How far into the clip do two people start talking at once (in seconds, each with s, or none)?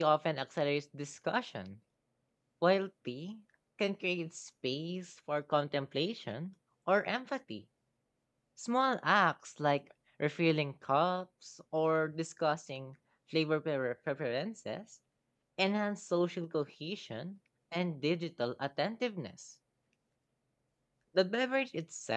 none